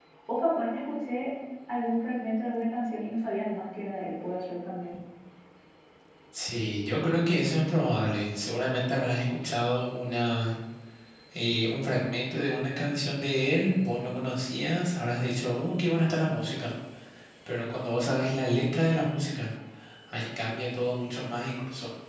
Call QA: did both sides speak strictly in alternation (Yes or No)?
Yes